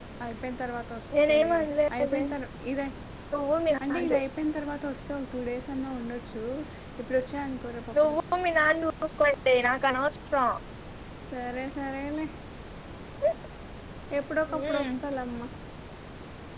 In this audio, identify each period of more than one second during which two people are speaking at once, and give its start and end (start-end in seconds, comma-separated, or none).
none